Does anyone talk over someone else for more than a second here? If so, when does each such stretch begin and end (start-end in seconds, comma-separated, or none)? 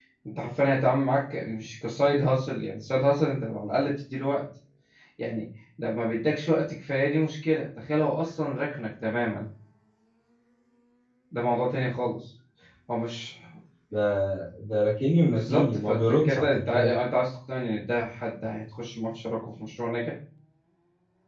15.2-16.9